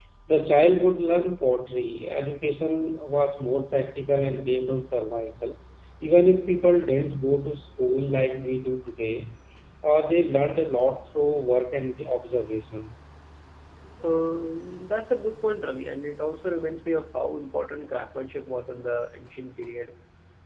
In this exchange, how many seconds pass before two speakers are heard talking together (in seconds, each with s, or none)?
none